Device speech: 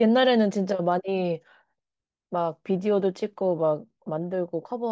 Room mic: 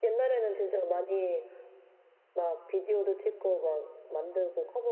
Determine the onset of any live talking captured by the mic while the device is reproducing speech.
none

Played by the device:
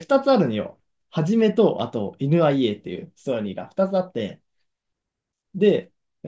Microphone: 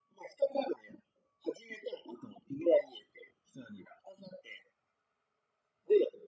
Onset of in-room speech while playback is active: none

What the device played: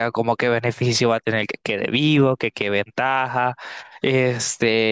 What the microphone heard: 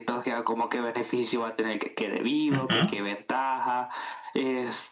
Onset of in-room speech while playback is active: 2.5 s

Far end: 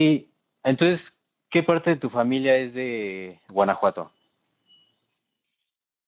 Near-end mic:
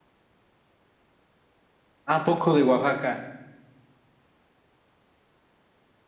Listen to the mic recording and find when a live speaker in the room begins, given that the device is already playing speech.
2.1 s

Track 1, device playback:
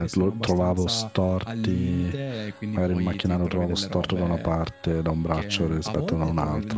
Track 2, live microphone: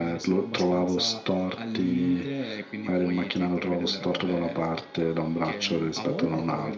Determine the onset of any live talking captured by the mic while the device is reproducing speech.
none

